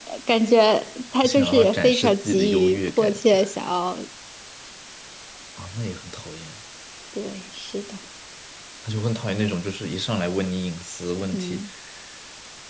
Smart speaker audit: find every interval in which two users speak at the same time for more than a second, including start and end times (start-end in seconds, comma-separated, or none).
1.2-3.2